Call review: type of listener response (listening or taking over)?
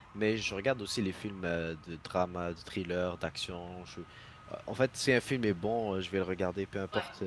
listening